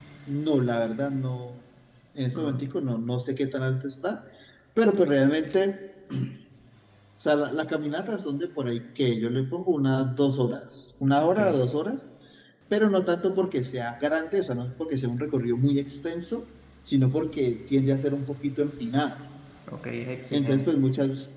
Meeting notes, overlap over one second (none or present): none